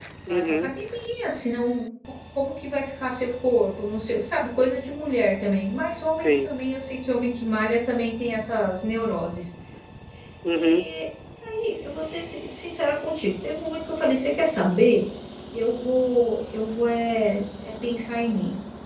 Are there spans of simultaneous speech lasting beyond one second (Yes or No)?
No